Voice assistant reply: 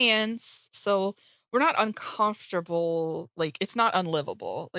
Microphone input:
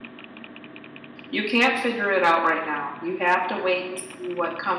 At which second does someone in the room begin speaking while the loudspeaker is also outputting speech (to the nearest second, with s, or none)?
1 s